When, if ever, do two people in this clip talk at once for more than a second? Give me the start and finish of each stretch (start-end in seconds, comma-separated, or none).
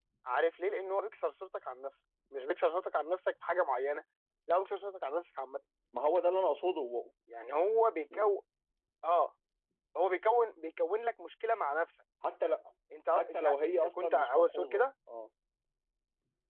13.1-14.8